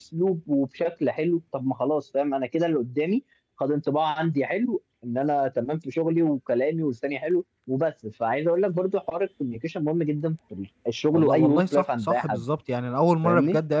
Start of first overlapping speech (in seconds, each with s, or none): 11.1 s